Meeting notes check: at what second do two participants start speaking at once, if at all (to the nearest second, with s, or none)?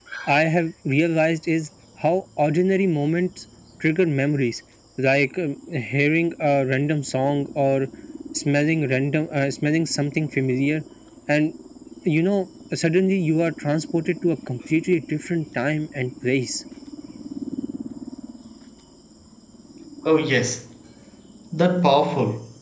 none